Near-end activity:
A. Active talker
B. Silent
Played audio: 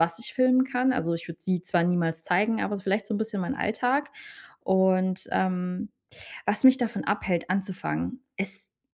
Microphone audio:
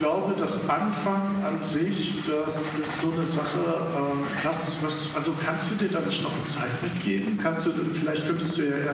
A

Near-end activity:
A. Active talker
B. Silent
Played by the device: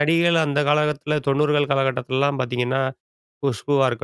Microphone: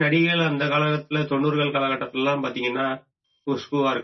B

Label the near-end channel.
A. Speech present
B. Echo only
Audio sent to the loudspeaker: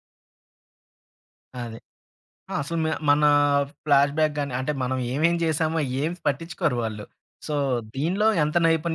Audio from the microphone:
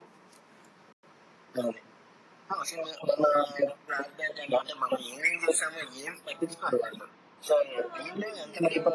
A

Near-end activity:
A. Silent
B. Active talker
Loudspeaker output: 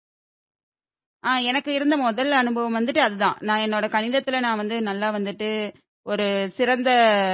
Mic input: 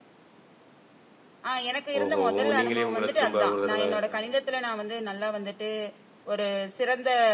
B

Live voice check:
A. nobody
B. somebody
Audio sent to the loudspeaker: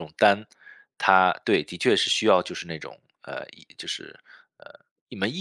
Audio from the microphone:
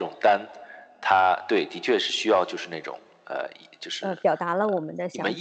B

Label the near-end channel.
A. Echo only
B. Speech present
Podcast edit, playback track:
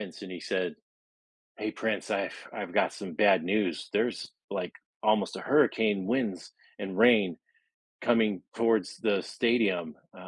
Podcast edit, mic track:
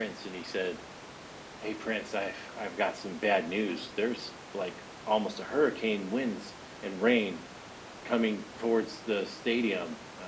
A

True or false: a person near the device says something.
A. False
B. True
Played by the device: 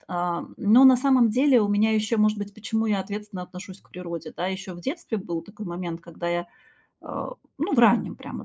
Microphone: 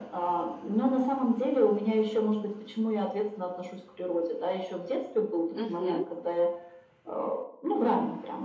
B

